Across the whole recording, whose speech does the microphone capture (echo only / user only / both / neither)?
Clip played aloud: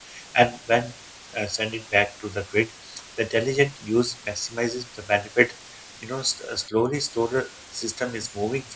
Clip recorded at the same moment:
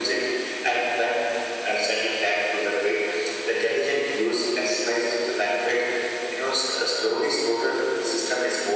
echo only